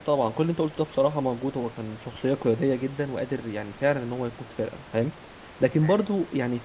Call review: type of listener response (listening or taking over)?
listening